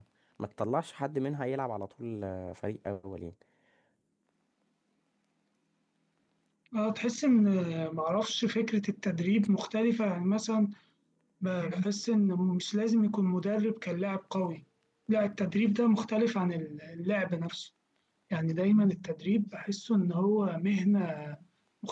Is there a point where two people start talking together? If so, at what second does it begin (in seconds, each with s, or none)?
none